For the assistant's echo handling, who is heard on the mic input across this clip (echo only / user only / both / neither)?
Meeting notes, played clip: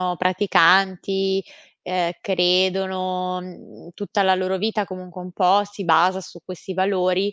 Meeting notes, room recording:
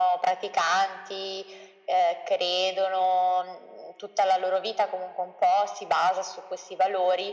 echo only